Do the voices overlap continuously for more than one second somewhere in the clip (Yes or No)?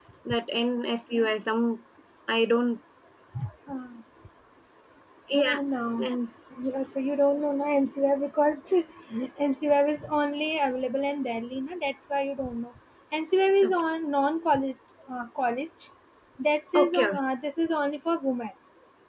No